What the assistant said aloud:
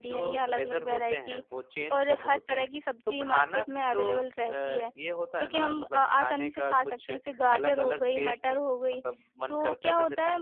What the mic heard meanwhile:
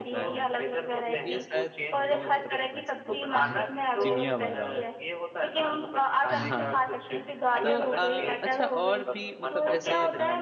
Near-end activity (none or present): present